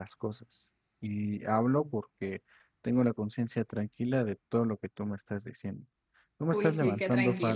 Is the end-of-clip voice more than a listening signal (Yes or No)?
Yes